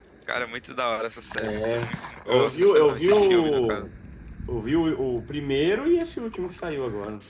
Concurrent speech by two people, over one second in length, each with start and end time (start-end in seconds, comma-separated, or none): 2.3-3.9